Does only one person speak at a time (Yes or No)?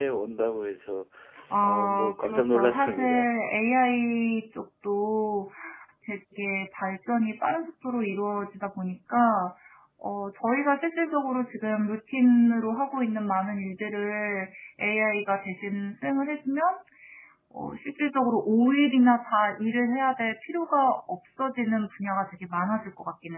No